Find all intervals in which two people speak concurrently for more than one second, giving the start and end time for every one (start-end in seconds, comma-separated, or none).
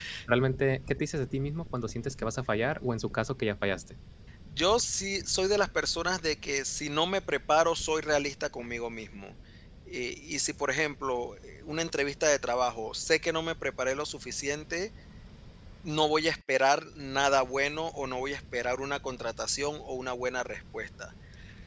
none